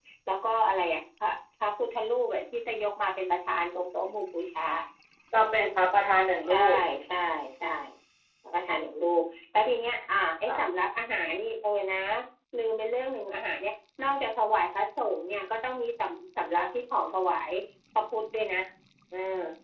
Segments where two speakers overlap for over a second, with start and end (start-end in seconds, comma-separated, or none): none